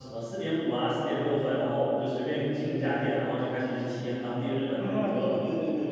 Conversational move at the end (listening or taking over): taking over